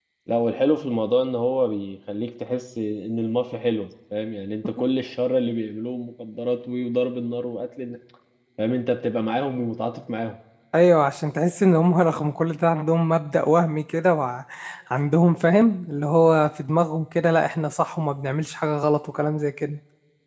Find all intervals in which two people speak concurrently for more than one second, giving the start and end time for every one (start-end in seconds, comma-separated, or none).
none